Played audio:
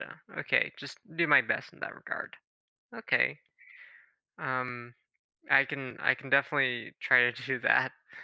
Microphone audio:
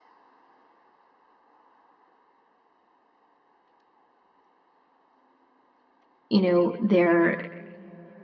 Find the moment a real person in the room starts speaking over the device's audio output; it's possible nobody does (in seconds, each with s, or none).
6.3 s